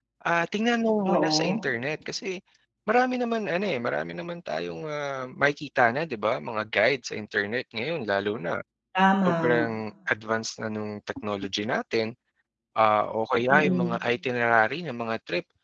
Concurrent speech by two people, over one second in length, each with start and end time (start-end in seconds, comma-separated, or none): none